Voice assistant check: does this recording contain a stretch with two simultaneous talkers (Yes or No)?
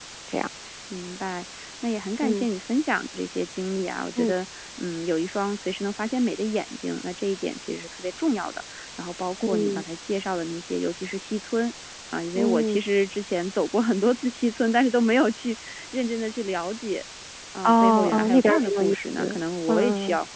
Yes